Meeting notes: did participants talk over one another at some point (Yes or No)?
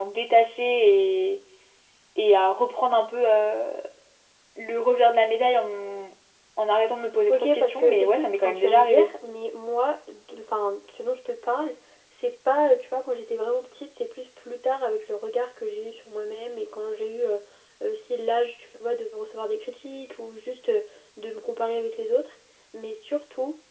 Yes